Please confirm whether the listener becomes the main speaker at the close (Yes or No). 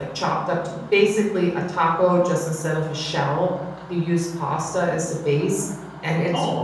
No